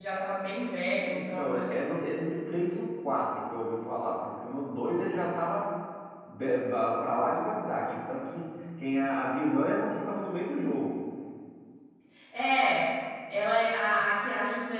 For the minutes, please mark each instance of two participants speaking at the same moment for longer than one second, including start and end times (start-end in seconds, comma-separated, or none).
none